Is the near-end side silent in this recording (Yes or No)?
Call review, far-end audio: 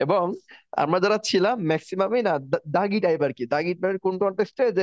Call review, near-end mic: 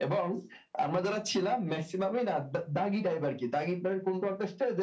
Yes